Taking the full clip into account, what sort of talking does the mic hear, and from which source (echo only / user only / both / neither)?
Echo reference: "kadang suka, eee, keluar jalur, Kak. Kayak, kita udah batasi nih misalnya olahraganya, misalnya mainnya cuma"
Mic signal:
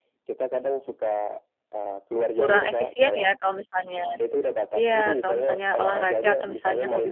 both